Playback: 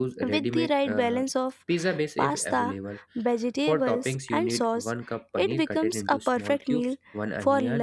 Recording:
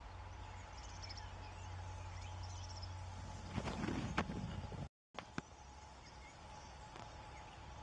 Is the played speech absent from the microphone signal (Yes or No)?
Yes